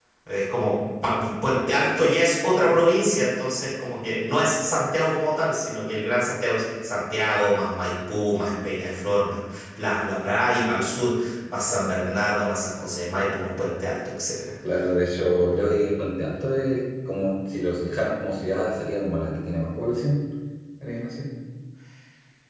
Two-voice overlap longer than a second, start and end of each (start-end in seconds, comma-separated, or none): none